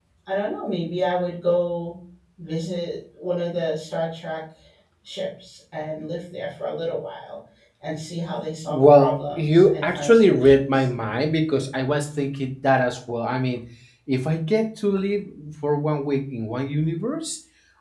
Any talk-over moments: Yes, from 8.7 s

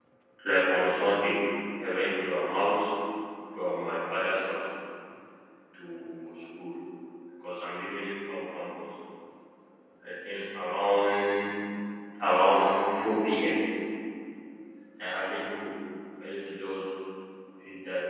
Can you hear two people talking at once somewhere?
No

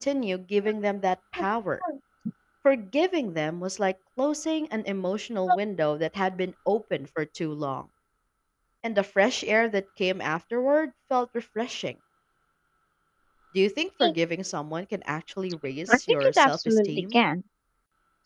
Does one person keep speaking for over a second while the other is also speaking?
Yes, from 15.9 s

